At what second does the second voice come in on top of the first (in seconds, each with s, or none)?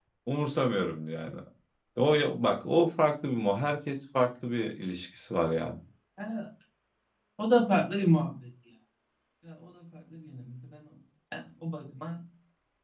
none